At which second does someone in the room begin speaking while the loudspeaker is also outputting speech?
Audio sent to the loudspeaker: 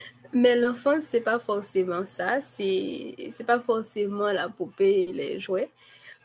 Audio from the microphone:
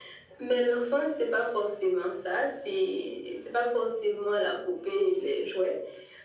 none

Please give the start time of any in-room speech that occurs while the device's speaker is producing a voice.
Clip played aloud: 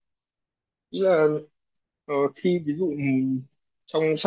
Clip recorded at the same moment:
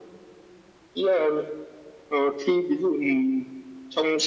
none

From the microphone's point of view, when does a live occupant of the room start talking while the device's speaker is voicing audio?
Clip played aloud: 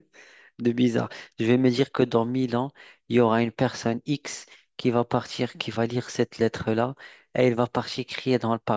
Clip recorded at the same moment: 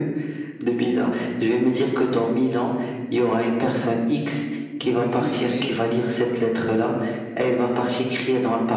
4.8 s

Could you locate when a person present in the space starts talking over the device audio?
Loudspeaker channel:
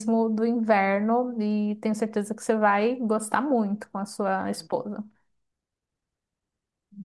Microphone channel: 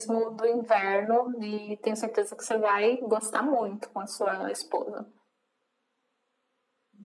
none

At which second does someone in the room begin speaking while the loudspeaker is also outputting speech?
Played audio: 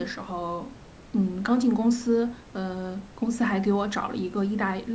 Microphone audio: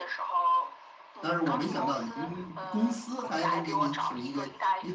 1.2 s

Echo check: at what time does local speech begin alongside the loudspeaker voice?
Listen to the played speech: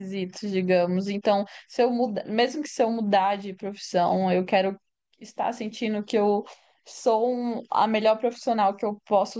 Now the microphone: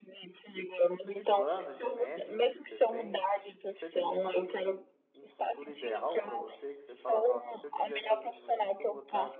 0.9 s

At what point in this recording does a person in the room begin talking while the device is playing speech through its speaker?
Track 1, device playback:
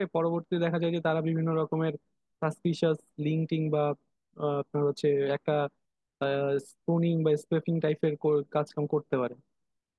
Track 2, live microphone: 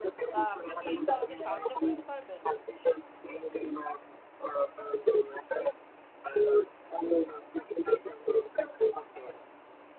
0.3 s

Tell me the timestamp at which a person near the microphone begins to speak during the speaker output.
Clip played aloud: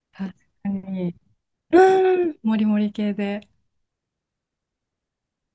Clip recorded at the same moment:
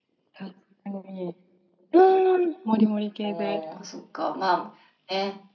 3.2 s

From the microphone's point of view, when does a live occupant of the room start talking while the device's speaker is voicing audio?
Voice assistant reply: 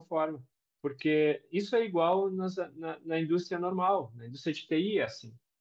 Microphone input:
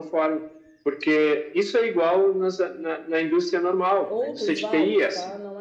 4.1 s

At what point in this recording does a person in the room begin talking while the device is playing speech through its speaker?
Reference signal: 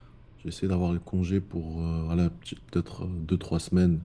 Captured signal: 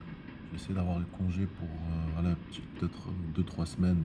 none

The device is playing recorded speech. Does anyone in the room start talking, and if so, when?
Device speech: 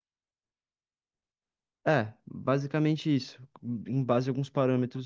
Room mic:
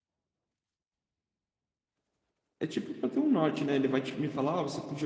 2.6 s

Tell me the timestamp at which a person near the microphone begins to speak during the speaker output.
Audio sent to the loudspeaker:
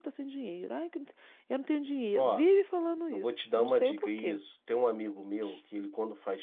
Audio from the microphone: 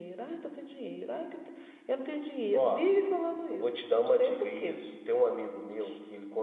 none

